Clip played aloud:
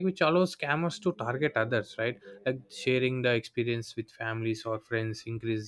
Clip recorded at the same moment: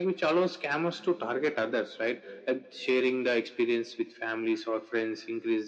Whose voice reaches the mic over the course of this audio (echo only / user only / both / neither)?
echo only